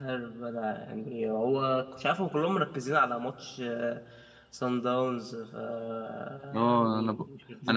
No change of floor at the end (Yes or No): No